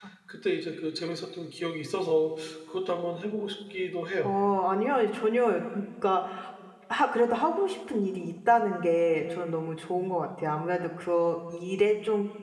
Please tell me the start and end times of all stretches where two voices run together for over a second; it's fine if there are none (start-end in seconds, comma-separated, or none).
none